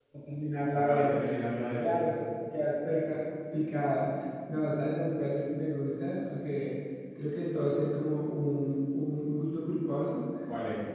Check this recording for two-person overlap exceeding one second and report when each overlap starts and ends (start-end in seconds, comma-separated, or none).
none